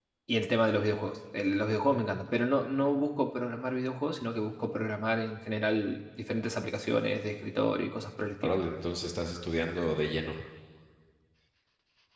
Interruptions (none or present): none